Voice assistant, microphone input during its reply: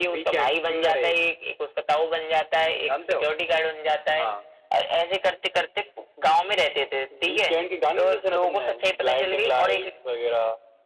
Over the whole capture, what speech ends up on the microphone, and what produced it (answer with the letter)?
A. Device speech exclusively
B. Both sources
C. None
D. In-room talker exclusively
A